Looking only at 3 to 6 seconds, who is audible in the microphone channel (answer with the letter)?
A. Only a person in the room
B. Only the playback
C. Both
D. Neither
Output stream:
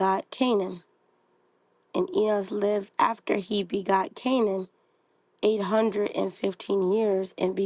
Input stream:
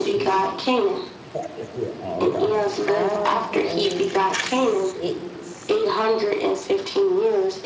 C